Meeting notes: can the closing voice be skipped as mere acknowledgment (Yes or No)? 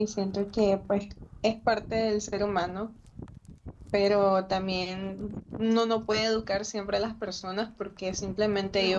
Yes